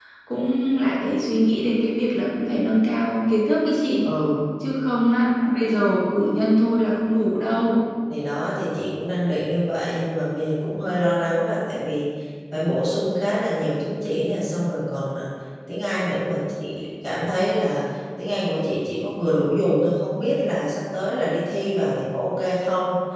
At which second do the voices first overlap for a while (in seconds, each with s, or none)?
none